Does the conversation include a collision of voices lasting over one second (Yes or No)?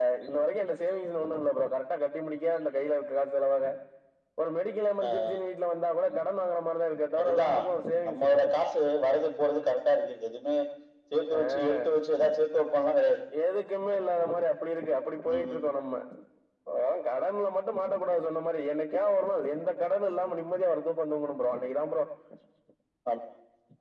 No